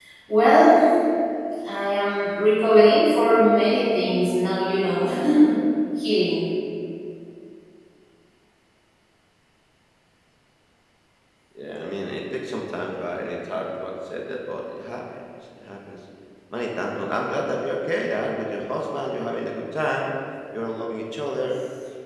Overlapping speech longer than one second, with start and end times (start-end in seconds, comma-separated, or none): none